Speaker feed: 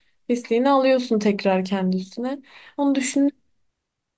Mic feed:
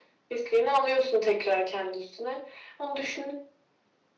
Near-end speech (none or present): none